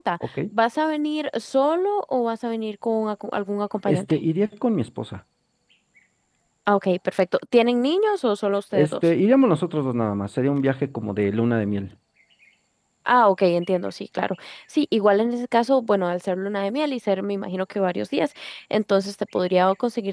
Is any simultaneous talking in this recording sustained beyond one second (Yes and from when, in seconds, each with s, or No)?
No